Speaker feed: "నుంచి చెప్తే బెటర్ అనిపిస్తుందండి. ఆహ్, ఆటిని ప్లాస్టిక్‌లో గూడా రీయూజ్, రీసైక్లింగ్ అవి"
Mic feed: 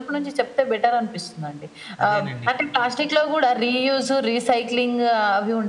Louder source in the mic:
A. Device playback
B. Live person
A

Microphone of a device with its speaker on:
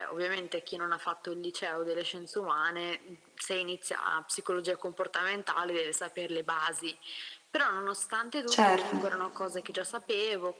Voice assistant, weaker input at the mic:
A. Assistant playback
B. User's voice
A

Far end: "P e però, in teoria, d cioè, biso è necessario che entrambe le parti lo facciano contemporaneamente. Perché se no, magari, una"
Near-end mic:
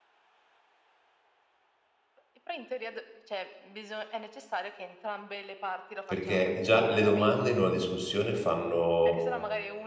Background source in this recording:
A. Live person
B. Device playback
B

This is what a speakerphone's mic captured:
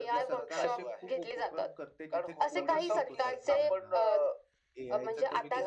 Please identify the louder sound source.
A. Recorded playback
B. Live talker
A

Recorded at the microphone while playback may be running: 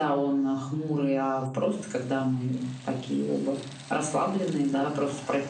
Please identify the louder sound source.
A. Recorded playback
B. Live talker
A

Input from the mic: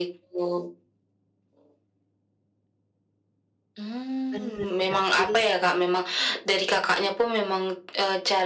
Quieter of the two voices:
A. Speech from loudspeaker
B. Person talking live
B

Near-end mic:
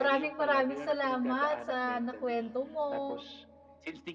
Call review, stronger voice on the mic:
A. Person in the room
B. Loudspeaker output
A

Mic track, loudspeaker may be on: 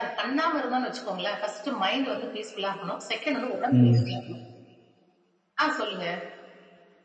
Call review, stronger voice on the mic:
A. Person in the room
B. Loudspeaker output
A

